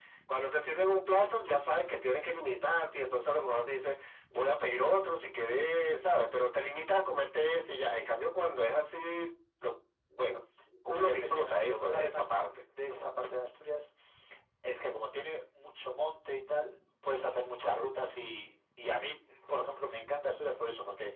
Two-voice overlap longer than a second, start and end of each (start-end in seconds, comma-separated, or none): 11.0-12.5